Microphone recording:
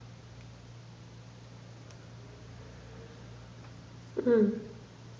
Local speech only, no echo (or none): 嗯